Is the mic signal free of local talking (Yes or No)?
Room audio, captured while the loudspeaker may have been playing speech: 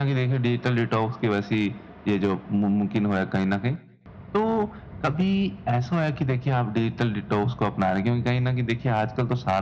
Yes